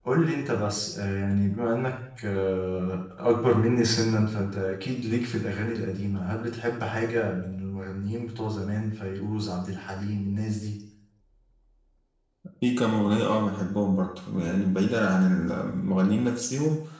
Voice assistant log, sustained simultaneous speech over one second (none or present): none